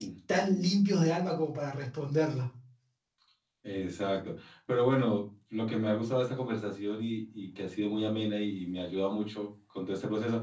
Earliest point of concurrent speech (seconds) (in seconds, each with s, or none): none